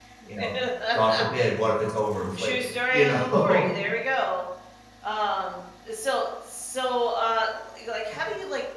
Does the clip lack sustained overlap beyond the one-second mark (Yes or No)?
No